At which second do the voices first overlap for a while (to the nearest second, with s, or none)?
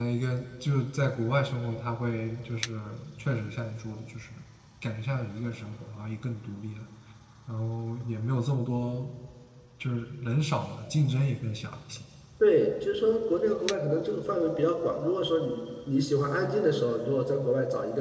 none